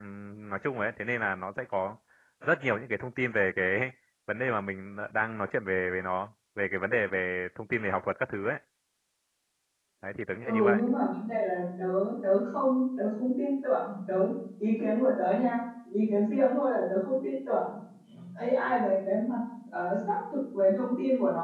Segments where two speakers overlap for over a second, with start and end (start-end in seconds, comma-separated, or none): none